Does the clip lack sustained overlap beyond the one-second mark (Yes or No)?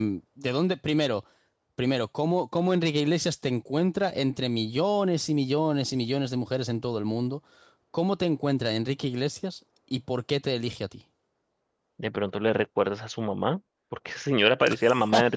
Yes